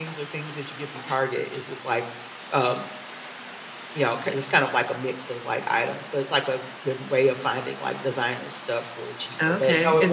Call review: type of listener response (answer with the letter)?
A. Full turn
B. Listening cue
A